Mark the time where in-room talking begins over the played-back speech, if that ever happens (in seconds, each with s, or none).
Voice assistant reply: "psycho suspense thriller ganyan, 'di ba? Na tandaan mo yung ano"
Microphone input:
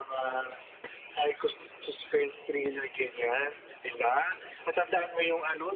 none